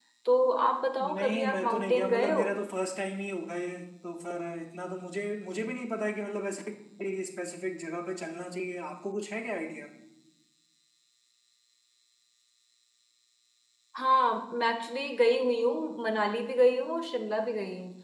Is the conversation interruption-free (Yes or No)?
No